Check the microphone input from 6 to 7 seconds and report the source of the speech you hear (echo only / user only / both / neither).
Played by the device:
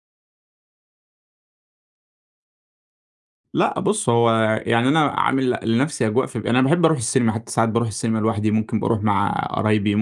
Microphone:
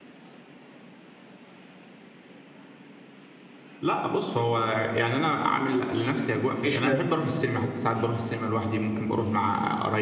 both